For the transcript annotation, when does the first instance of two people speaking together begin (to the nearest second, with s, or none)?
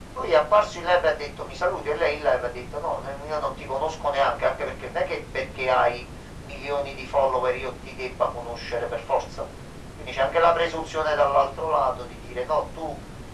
none